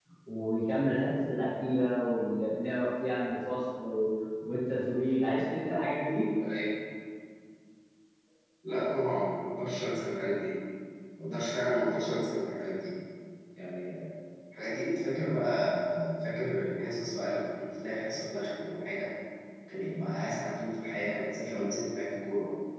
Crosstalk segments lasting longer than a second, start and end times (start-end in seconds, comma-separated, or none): none